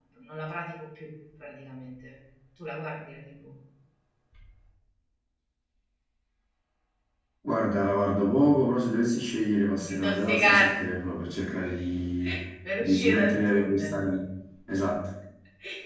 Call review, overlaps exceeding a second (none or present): present